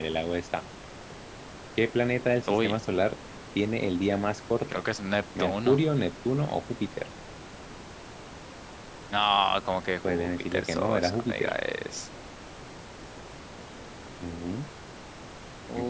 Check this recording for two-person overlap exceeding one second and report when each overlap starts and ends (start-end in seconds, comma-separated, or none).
10.0-11.5